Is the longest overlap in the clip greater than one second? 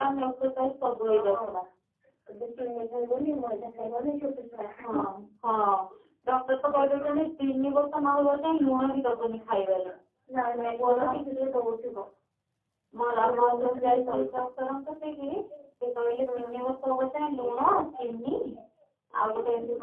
Yes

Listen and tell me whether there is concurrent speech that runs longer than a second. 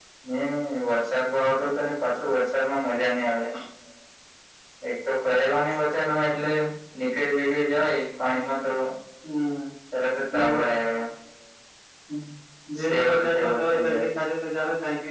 Yes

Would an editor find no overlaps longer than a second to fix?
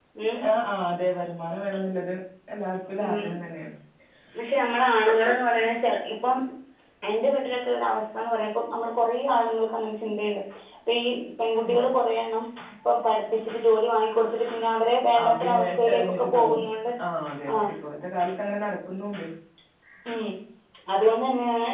No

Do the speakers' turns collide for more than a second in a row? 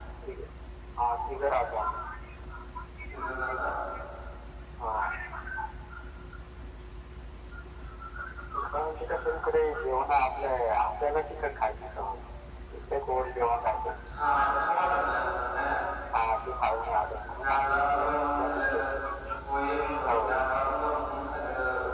Yes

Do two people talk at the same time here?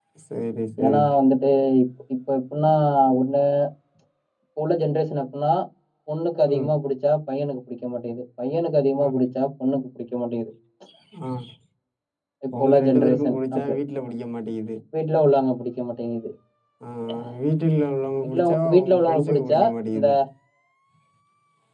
Yes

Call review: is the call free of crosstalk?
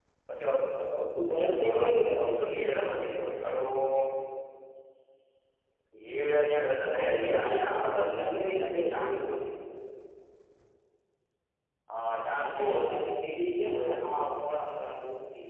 No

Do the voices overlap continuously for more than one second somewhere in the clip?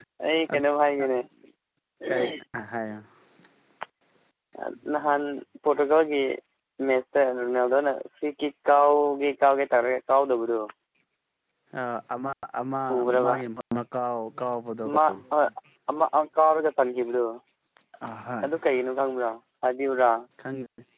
No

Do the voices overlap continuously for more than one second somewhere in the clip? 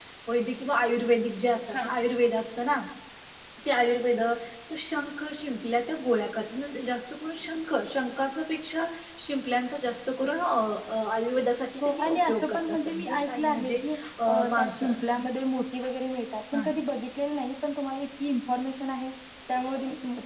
Yes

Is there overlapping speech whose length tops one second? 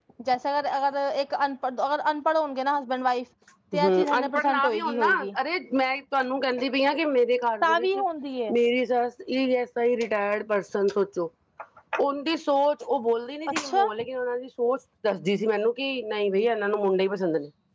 Yes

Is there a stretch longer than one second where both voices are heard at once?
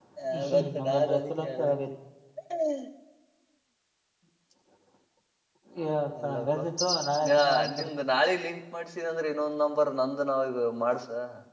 Yes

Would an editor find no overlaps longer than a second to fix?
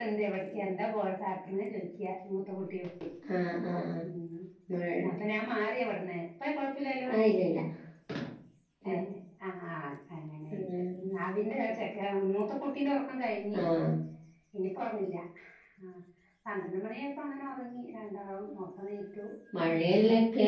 Yes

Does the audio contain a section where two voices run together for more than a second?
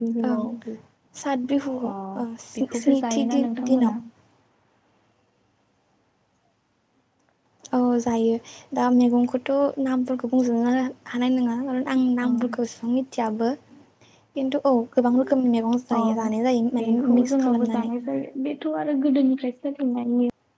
Yes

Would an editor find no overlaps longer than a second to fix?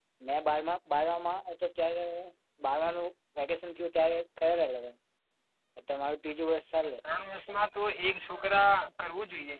Yes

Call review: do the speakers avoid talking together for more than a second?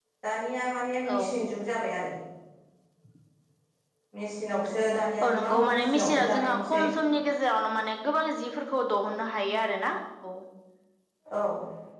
No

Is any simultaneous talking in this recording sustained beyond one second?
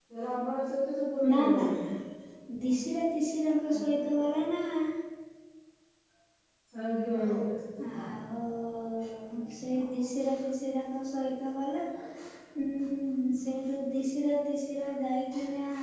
No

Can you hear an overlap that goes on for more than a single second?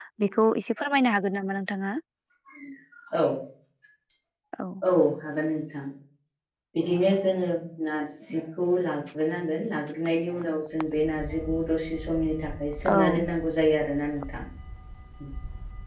No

